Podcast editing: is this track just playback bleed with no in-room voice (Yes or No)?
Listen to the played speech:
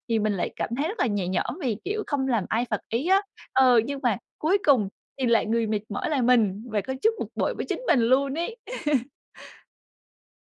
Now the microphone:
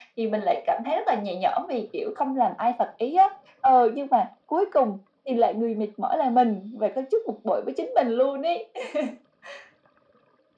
Yes